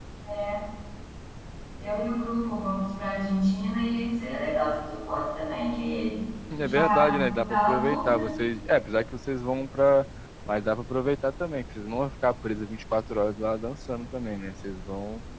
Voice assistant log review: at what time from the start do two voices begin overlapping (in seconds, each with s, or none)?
6.6 s